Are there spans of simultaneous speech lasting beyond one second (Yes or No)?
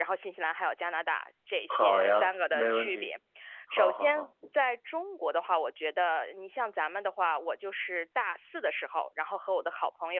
Yes